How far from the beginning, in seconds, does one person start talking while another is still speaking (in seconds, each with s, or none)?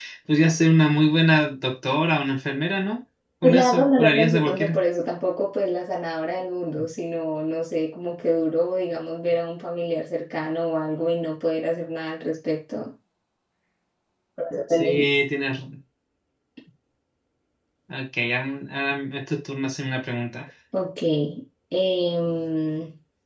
3.4 s